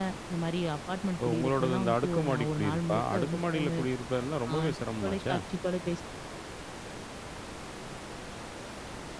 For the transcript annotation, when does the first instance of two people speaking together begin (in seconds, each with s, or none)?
1.2 s